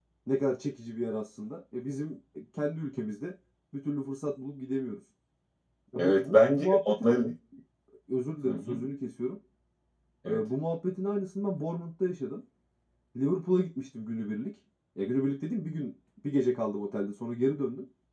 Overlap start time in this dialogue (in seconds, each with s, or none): 6.0 s